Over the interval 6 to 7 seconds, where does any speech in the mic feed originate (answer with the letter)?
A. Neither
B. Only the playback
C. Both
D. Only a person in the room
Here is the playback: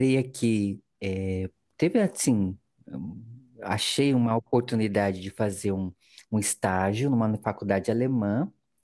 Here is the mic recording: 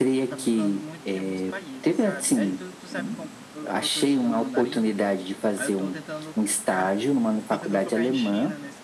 C